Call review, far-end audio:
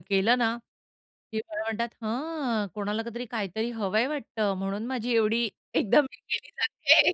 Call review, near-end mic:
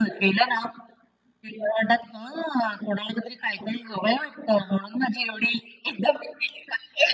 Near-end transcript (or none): none